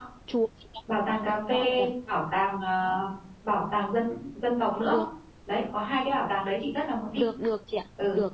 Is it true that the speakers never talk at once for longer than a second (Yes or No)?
Yes